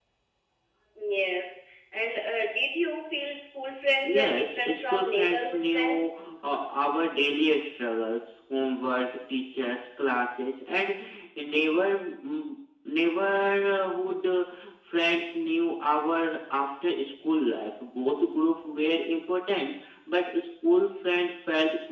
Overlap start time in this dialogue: 4 s

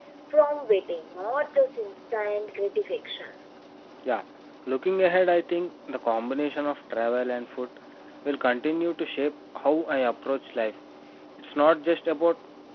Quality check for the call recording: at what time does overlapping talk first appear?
none

